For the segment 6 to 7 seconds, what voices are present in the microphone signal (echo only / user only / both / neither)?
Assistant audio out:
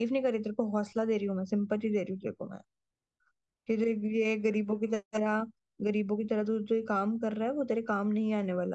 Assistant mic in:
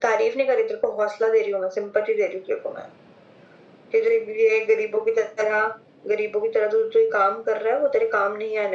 echo only